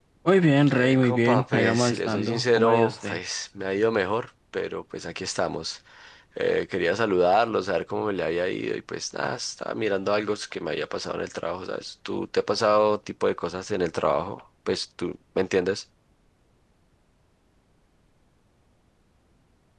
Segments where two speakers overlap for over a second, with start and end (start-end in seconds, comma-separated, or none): 0.7-3.2